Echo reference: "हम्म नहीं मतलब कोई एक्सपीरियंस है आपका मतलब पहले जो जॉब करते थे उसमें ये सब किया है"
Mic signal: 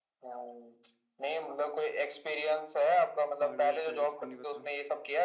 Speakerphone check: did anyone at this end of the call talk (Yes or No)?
Yes